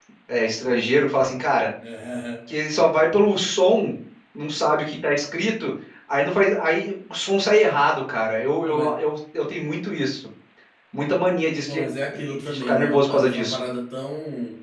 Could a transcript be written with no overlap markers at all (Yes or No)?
No